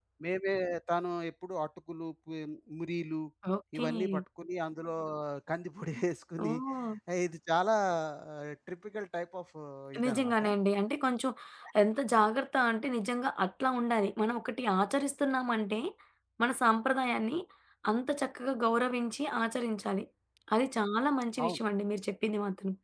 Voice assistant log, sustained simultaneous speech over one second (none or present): none